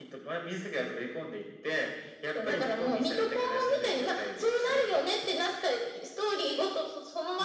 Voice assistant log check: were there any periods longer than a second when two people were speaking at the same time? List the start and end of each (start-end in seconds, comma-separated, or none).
2.4-4.8